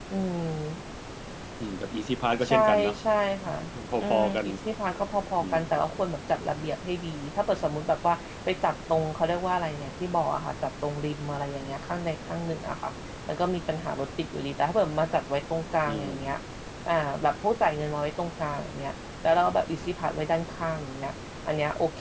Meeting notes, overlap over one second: none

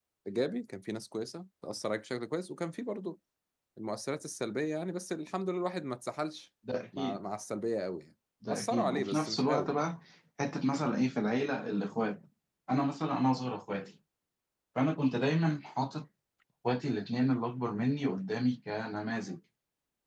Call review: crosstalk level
present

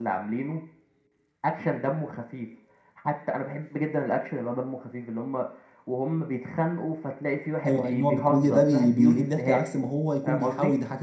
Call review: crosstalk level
present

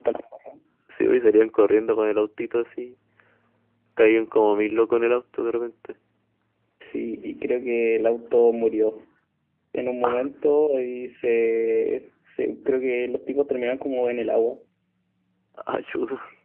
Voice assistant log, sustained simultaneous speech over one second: none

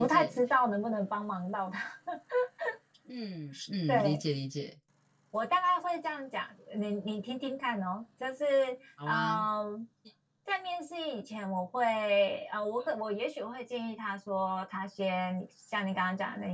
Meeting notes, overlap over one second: none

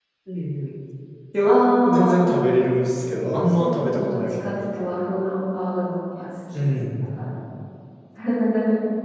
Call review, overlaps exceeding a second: present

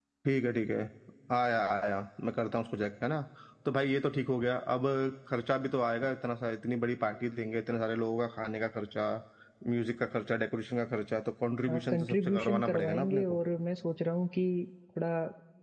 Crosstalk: present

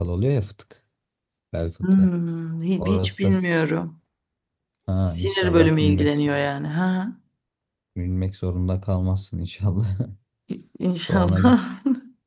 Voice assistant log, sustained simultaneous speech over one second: present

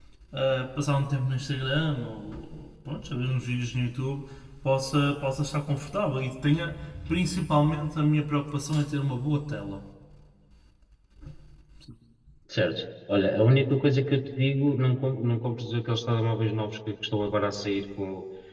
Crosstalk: none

